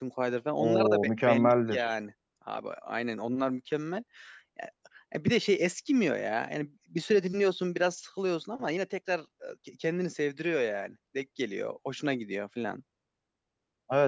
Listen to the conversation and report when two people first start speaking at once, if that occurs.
0.6 s

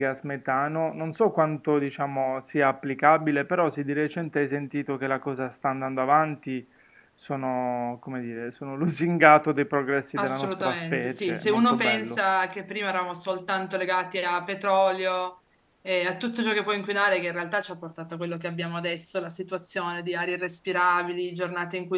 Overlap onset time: 10.2 s

